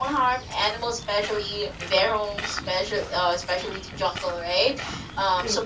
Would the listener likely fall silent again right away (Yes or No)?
Yes